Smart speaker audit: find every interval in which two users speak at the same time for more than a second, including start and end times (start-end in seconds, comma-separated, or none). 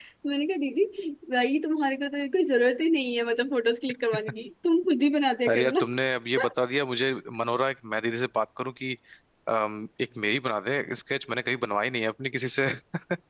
none